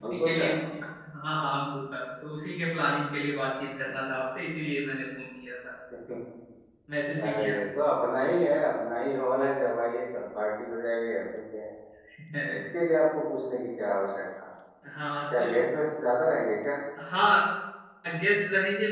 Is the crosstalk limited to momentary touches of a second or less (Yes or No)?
Yes